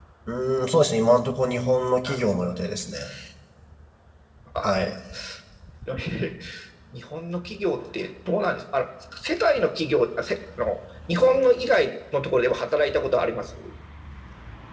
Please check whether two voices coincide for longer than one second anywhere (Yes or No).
No